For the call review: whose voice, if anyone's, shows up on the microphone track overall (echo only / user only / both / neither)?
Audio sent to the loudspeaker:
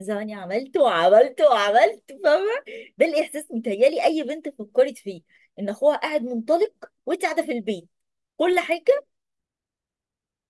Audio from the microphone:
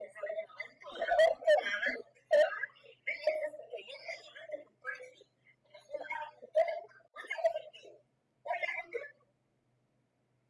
echo only